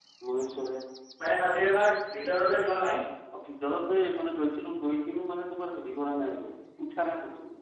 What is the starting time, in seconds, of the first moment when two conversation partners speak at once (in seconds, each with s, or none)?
none